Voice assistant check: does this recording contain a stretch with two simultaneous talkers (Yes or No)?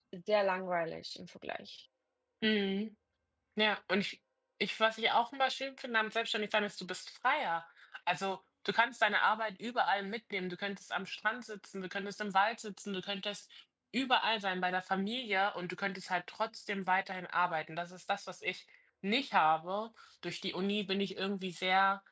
No